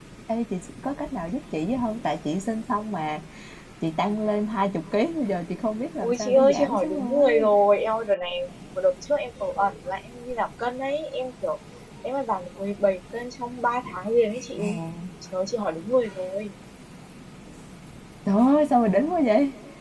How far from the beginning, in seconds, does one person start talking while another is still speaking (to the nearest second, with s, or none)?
6 s